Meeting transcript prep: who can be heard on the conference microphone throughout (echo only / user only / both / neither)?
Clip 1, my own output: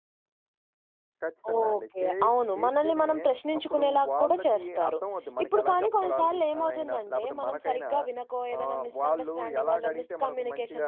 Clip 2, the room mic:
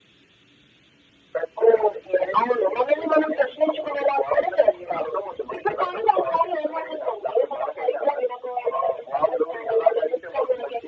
echo only